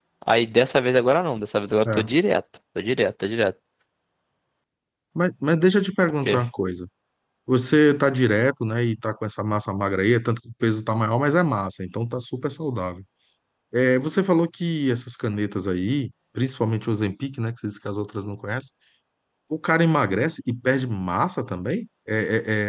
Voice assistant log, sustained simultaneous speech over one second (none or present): none